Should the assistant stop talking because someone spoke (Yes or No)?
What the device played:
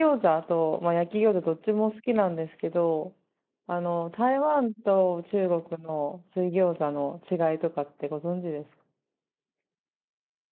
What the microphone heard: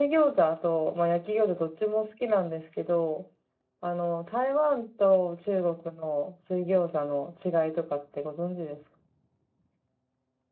No